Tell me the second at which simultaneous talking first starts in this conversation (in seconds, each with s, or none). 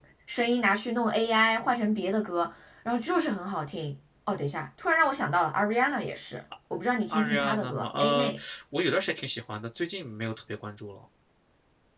7.1 s